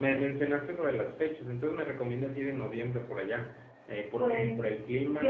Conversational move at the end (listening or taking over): taking over